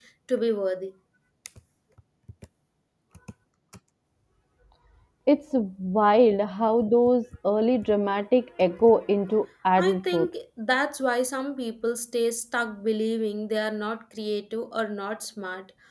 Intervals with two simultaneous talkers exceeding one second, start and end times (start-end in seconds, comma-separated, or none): none